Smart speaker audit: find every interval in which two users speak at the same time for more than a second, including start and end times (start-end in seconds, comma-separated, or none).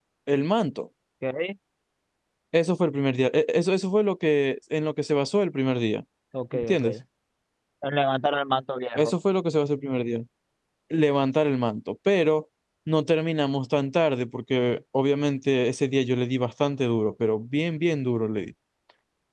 none